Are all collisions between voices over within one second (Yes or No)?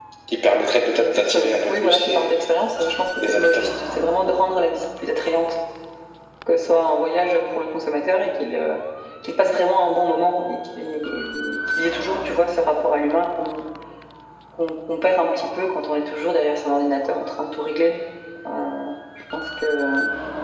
No